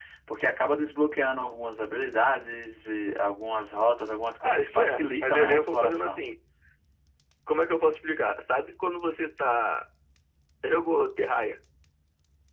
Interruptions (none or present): present